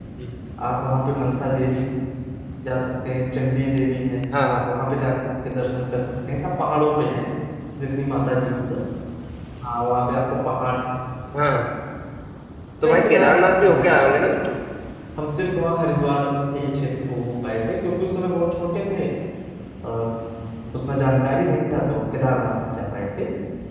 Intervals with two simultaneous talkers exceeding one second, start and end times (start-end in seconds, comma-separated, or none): 12.8-14.3